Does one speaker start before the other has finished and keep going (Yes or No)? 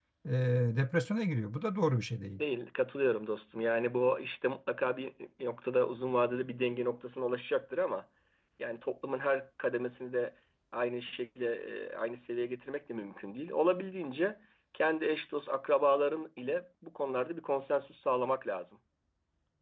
No